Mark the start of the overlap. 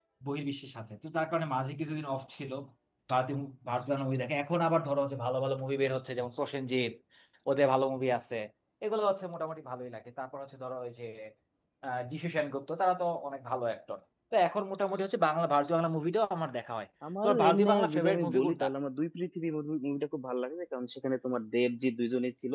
17.0 s

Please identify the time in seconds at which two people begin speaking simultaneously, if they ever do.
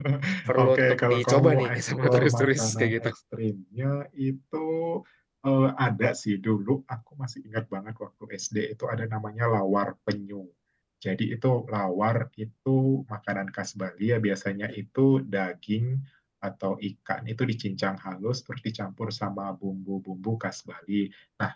0.6 s

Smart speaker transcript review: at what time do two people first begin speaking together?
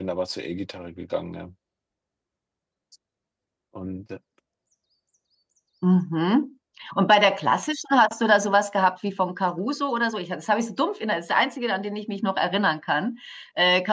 none

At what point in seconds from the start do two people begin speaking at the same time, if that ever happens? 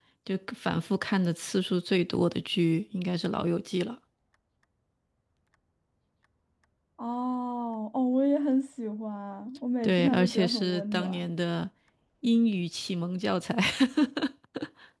9.8 s

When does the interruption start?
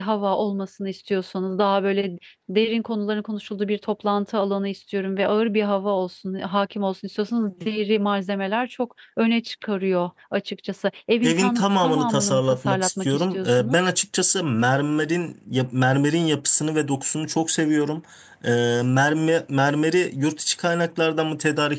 11.2 s

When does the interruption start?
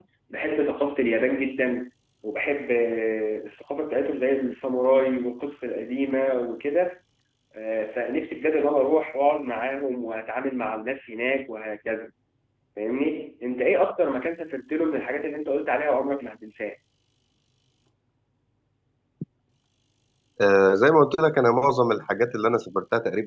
none

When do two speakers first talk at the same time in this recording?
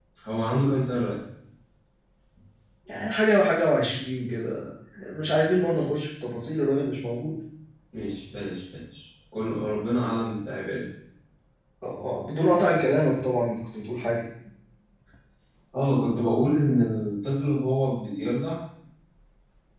none

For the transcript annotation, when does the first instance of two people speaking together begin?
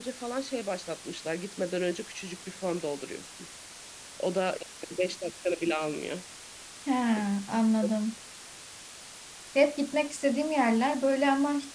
none

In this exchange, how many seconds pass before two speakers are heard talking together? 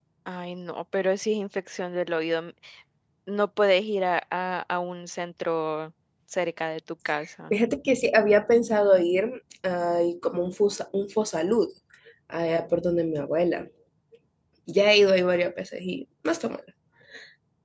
none

